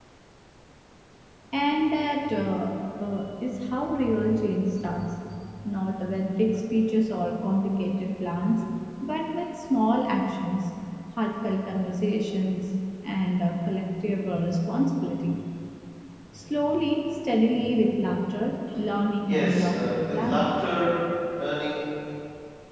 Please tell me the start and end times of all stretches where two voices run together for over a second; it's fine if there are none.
19.2-20.4

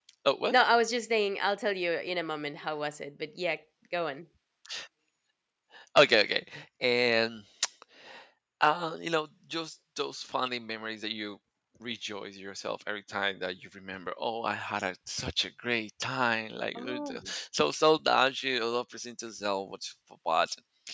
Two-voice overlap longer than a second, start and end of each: none

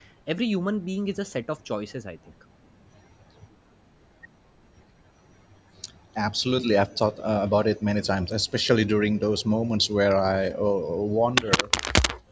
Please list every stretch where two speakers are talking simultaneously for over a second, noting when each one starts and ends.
none

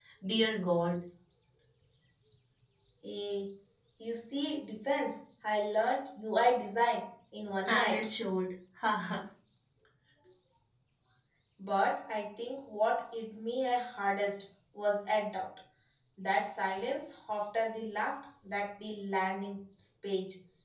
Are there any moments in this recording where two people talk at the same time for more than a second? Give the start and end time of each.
none

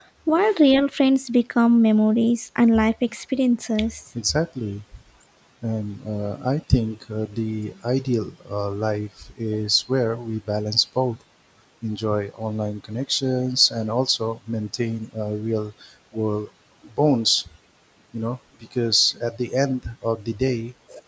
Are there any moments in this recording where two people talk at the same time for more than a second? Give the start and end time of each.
none

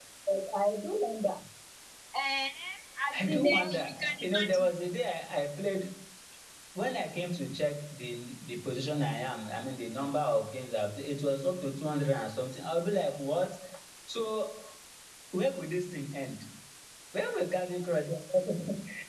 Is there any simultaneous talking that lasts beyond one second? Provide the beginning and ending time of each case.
3.2-4.7

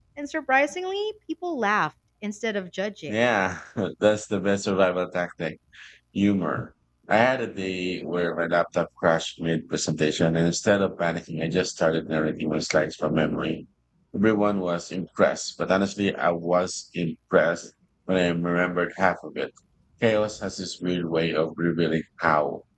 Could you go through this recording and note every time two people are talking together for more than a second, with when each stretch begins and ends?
none

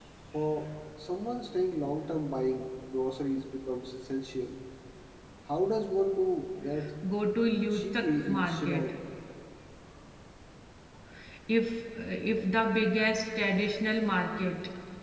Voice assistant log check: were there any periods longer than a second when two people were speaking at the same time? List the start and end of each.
7.7-8.9

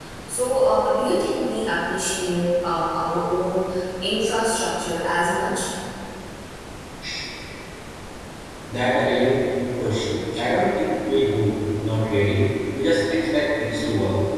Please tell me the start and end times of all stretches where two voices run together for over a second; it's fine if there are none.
none

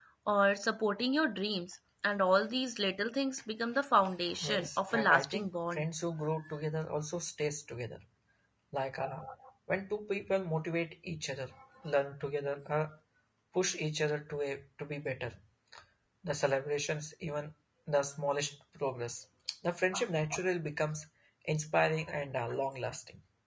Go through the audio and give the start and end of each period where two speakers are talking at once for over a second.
4.4-5.8

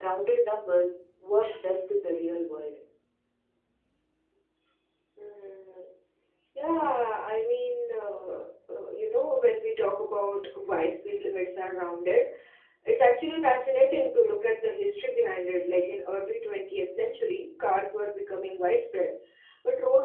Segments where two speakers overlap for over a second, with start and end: none

